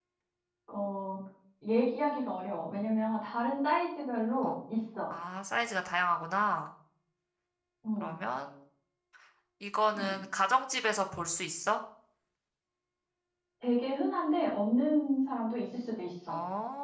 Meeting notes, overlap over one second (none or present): none